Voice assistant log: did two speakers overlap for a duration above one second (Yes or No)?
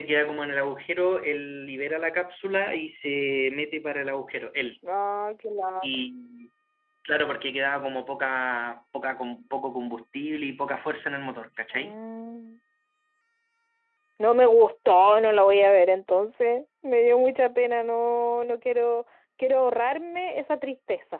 No